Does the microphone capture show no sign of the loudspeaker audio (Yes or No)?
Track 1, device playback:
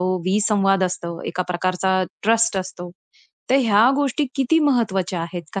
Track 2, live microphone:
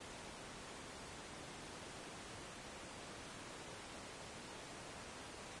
Yes